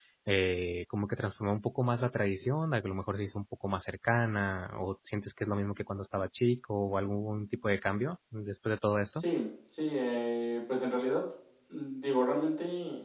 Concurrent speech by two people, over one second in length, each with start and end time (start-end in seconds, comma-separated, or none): none